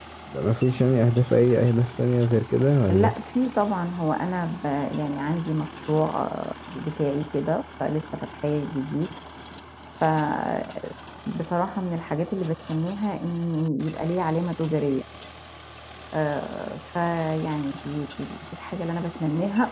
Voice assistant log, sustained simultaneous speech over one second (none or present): none